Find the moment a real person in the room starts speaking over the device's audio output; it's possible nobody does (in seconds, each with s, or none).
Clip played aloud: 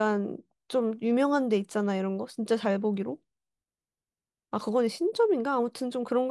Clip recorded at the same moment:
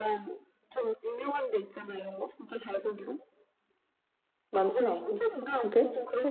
4.5 s